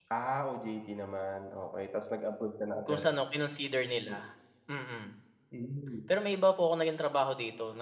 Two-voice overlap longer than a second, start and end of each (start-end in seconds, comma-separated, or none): none